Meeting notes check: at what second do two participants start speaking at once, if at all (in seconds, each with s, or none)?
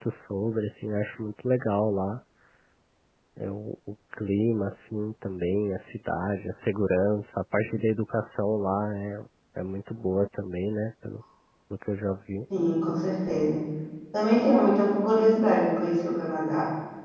none